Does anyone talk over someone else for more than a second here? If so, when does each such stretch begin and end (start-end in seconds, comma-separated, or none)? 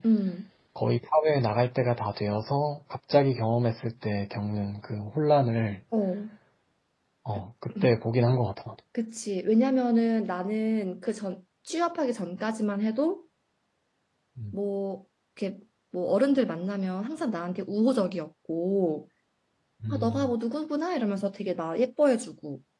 none